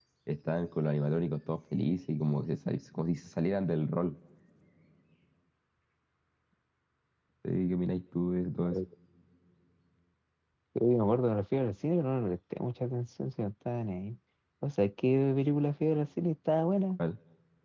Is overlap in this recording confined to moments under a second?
Yes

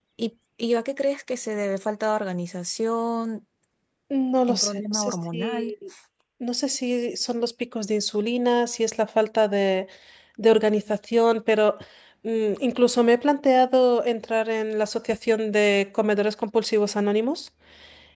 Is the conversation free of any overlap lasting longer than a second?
No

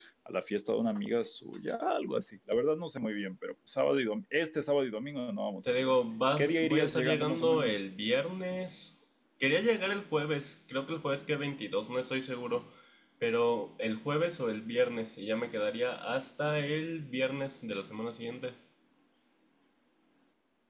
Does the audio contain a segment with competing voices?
Yes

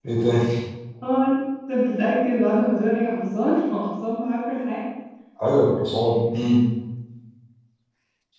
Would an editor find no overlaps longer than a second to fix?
Yes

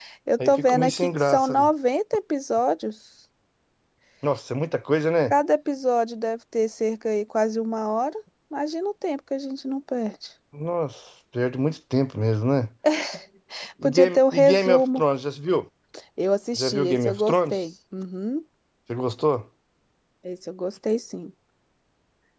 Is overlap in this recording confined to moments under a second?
No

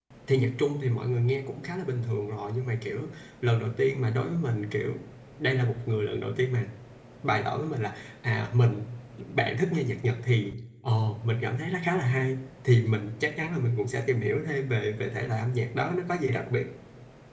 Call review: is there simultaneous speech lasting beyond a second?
No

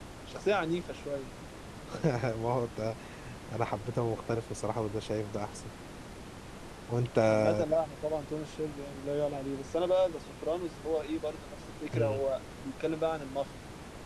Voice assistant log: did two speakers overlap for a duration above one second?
No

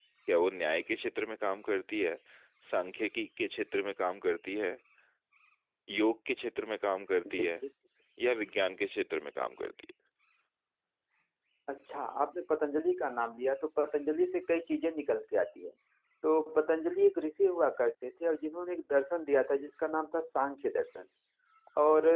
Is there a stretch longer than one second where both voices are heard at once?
No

